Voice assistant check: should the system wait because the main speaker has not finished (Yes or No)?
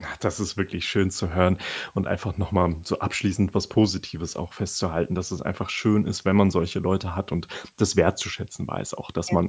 Yes